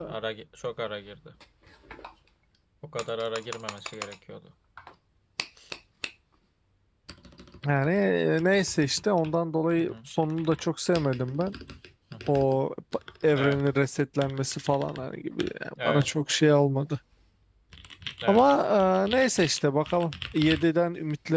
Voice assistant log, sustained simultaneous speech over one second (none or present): none